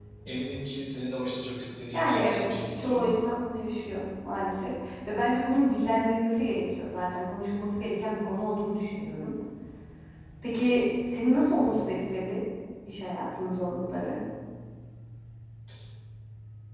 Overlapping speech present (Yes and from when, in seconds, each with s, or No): Yes, from 1.9 s